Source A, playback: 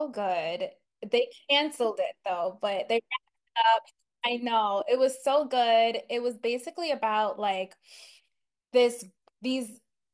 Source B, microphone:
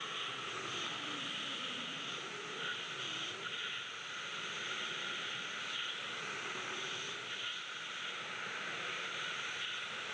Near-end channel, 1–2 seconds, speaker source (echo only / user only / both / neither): neither